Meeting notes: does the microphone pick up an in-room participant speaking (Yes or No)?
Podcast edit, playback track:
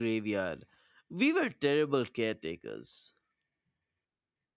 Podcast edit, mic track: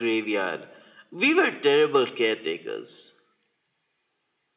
No